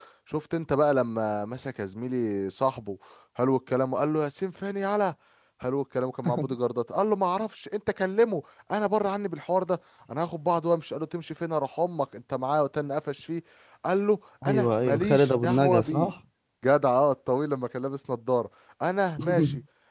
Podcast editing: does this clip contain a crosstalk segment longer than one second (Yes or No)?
Yes